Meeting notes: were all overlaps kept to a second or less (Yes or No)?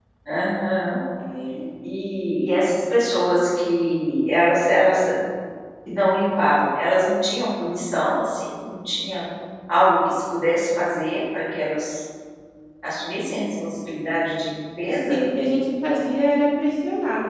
Yes